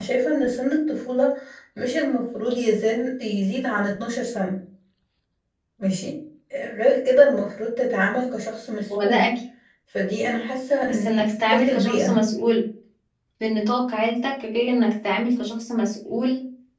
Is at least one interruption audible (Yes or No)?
Yes